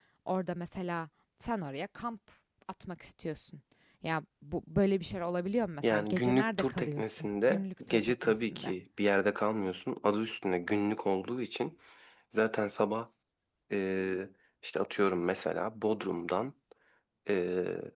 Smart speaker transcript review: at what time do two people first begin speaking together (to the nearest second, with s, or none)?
6 s